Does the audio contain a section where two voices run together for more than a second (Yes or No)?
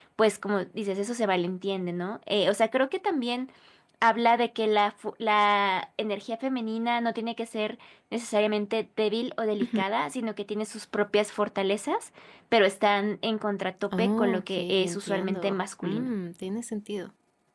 Yes